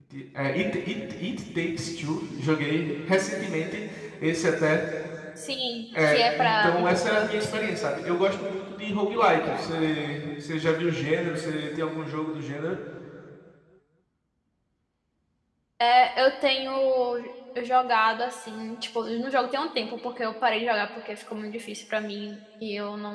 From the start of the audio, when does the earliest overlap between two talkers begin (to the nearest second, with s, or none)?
6 s